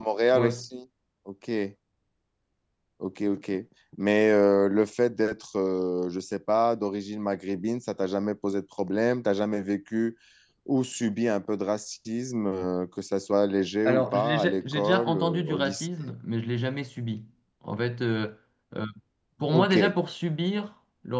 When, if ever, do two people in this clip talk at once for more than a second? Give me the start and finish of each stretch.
13.8-15.9

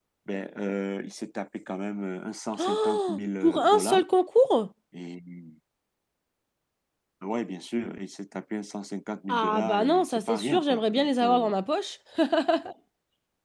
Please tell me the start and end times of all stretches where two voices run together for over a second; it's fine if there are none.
2.6-4.0, 9.3-11.5

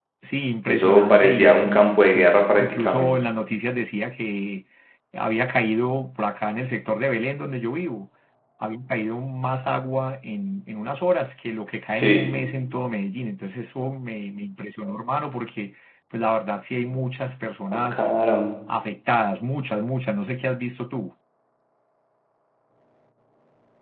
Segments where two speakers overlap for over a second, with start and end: 0.7-3.1

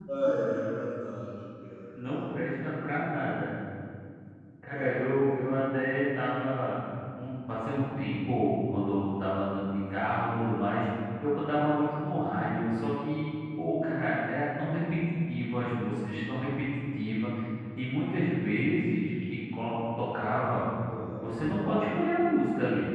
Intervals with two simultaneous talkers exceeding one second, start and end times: none

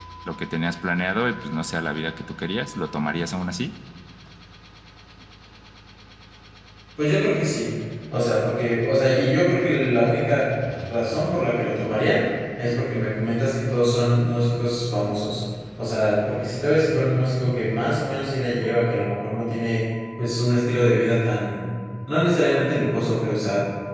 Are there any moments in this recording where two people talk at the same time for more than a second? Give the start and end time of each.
none

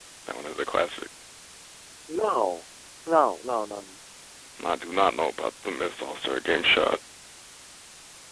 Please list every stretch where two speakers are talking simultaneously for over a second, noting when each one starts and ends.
none

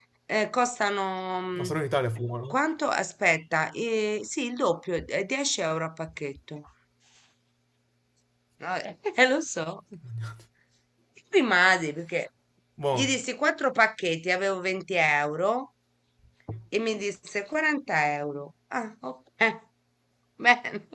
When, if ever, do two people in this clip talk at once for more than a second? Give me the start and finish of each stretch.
none

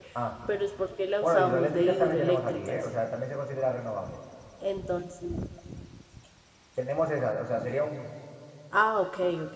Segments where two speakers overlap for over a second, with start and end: 1.2-2.9

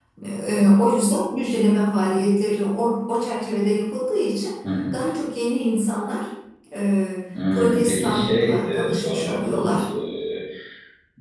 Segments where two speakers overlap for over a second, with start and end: 7.5-9.7

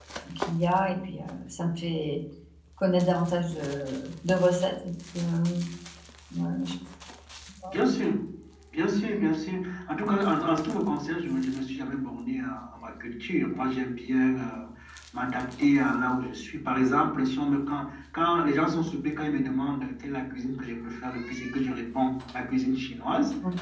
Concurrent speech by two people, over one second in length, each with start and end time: none

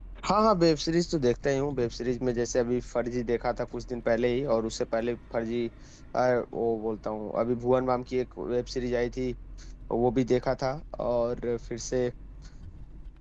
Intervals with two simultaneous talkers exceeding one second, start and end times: none

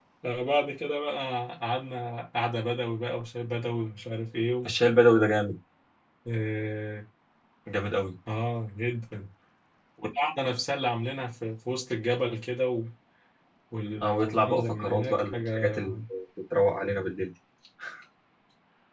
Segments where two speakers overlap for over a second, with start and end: 14.0-15.8

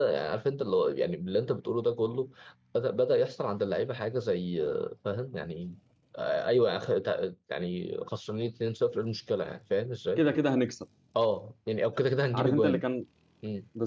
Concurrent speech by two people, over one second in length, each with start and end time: none

